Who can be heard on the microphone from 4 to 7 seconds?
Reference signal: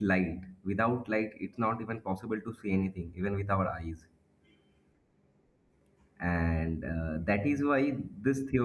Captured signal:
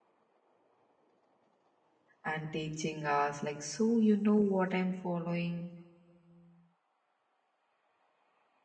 user only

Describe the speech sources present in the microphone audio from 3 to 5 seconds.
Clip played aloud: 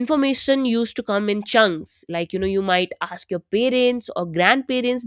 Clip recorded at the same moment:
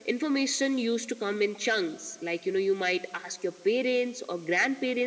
echo only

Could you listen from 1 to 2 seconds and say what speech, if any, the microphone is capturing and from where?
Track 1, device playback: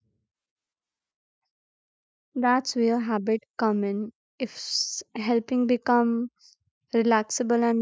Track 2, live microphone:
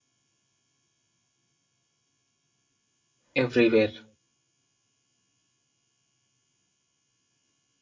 neither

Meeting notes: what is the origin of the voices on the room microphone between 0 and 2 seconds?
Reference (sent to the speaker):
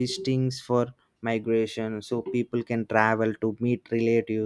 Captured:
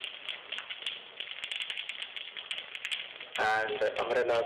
neither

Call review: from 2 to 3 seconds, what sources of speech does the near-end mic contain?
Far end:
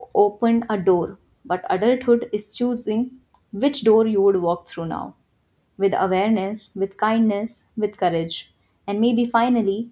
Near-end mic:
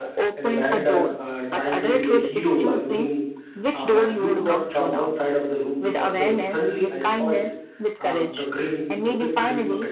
both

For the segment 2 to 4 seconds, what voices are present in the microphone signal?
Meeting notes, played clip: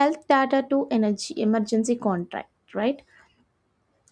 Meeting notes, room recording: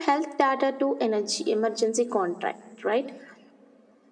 echo only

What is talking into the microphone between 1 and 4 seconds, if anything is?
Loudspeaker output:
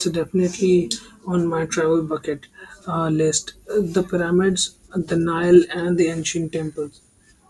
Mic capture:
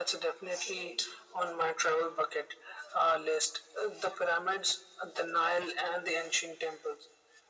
echo only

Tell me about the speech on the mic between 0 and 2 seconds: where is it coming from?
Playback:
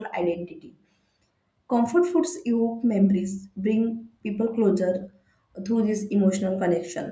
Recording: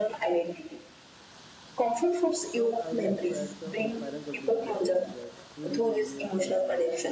echo only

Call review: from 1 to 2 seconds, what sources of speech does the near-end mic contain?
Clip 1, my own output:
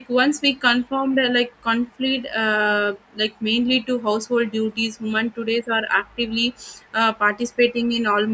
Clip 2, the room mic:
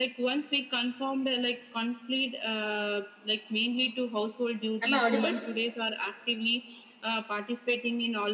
echo only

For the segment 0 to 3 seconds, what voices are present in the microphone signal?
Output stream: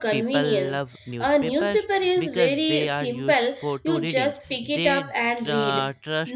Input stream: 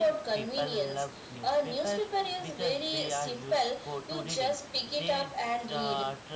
echo only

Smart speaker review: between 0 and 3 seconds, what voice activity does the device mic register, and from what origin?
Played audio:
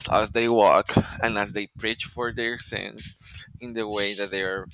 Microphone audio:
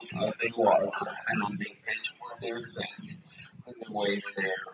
echo only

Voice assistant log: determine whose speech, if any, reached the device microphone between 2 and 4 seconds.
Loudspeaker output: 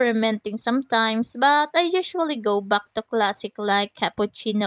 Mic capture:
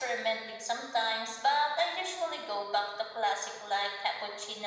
echo only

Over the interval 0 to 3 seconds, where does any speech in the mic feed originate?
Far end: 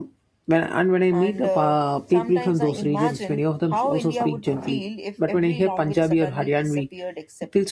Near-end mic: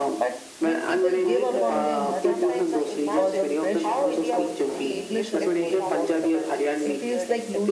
both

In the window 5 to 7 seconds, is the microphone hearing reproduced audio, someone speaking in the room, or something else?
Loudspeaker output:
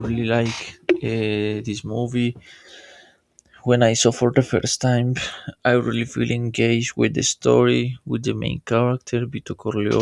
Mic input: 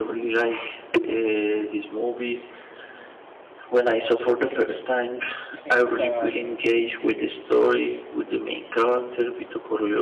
both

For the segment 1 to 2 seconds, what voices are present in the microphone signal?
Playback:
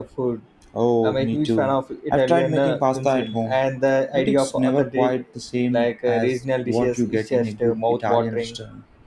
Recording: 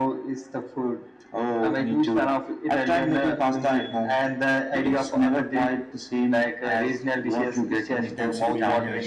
echo only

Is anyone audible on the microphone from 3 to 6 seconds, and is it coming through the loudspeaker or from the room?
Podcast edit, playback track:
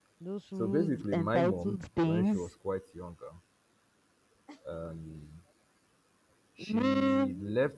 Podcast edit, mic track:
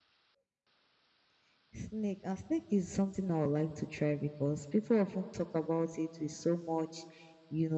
user only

